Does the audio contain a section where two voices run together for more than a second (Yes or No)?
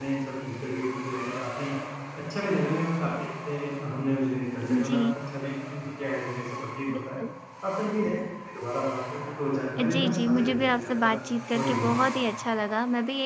Yes